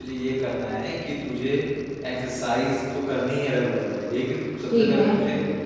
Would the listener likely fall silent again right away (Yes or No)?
Yes